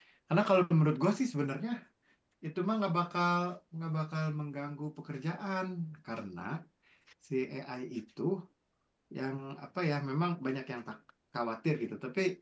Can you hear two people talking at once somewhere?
No

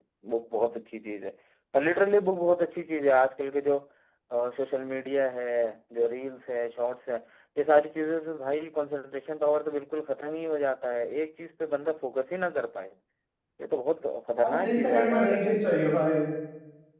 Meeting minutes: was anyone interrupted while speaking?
Yes, from 14.4 s

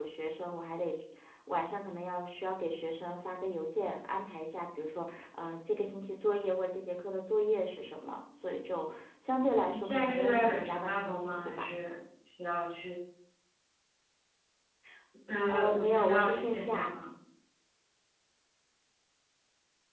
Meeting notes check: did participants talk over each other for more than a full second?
Yes, from 9.7 s

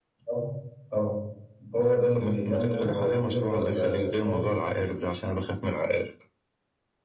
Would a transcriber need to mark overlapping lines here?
Yes, from 2.1 s

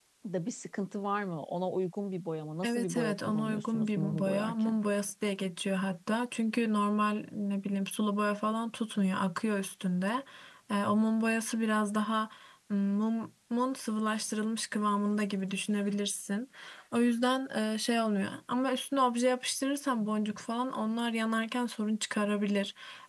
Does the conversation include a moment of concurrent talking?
Yes, from 2.6 s

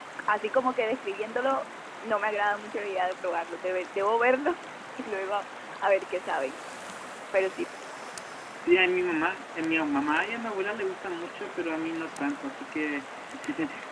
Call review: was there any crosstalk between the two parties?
No

